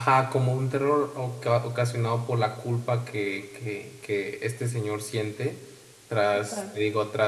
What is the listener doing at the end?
listening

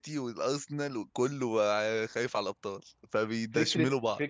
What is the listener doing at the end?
taking over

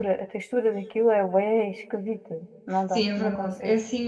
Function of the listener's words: taking over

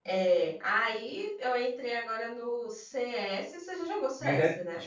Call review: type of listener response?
taking over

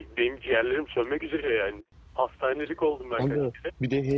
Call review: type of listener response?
taking over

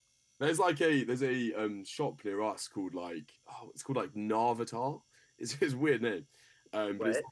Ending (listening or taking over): listening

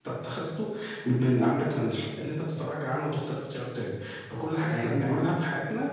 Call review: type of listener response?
listening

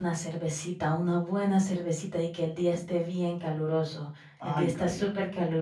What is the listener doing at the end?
listening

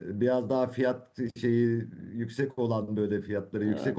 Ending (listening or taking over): listening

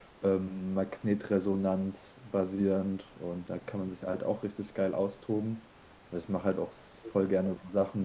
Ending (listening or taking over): listening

